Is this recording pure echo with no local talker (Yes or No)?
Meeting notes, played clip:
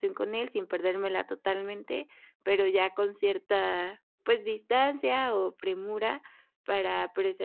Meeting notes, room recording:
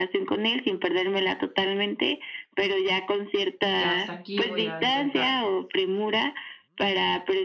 No